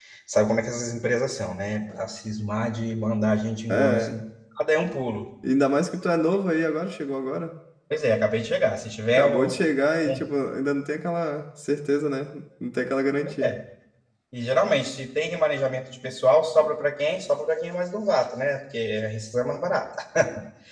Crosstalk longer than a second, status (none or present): none